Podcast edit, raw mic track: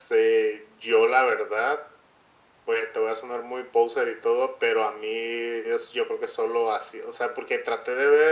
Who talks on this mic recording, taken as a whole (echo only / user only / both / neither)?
echo only